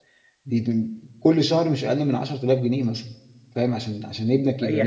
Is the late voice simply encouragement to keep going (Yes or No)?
No